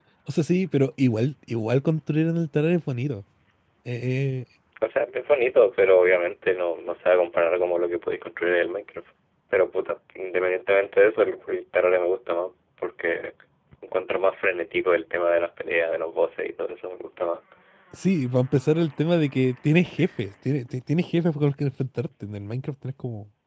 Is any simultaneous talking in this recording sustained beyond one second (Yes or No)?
No